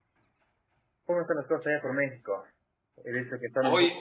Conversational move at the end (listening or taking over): listening